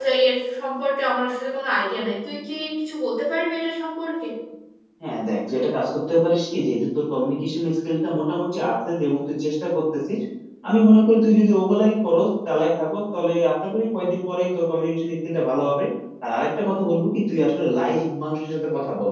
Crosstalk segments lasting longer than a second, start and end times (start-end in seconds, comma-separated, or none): none